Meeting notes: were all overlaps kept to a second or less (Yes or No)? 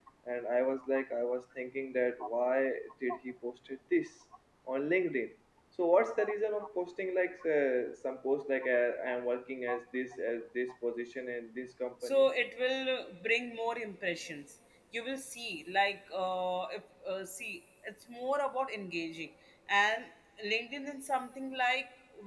Yes